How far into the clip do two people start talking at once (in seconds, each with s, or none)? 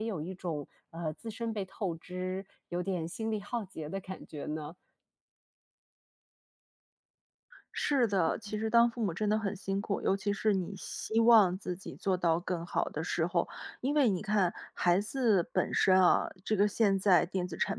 none